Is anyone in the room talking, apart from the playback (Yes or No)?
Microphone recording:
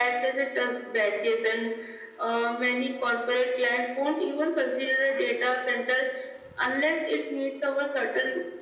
No